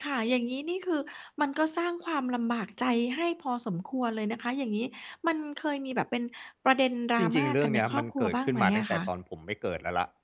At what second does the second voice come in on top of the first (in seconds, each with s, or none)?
7.2 s